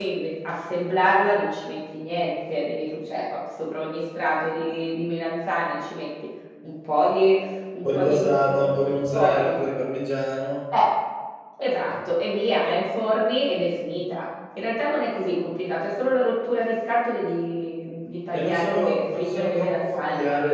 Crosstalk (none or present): present